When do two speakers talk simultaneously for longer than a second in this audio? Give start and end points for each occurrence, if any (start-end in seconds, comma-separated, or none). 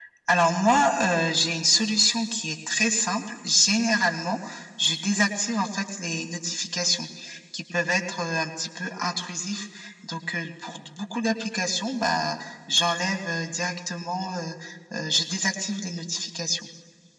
none